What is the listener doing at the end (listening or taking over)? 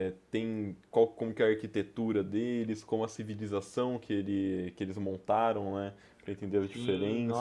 taking over